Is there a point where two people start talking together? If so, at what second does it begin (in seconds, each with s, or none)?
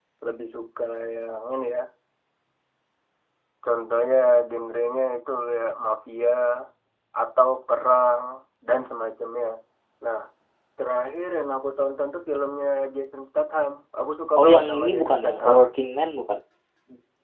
14.4 s